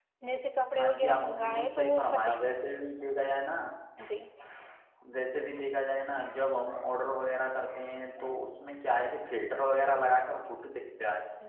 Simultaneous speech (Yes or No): Yes